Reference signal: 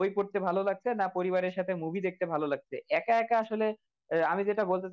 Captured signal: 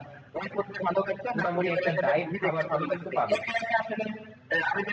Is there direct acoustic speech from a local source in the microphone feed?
Yes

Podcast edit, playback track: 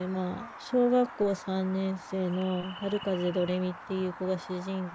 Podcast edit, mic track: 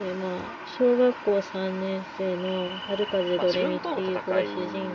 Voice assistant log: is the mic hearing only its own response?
No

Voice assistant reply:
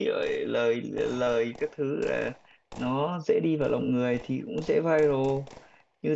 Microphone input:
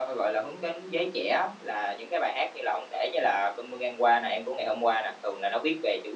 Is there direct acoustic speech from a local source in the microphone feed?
Yes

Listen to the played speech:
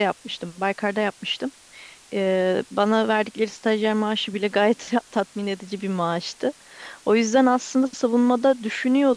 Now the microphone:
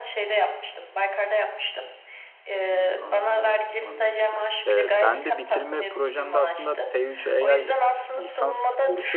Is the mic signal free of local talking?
No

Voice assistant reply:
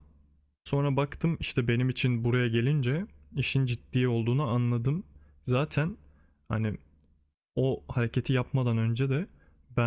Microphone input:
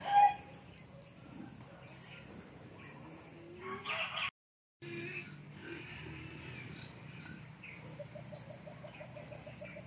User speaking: No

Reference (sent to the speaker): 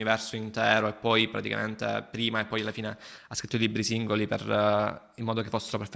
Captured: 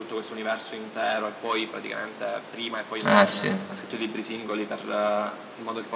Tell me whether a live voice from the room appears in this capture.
Yes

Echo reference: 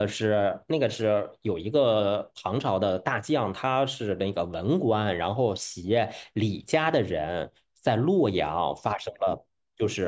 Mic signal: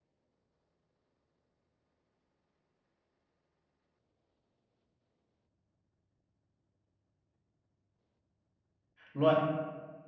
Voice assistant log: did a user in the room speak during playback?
Yes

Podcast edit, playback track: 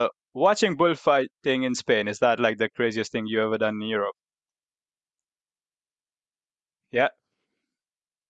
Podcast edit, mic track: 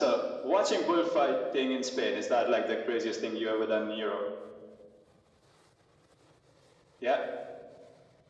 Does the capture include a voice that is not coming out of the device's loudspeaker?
No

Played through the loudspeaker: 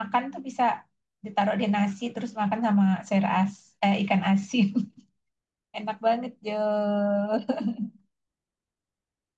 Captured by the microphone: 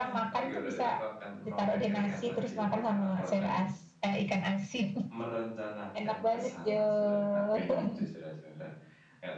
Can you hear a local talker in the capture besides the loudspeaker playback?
Yes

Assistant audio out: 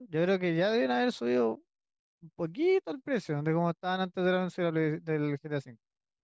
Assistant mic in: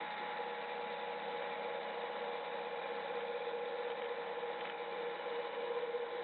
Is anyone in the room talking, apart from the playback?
No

